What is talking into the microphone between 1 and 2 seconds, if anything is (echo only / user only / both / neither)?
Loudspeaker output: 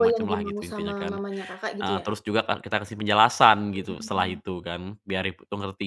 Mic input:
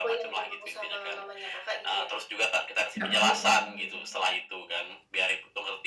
echo only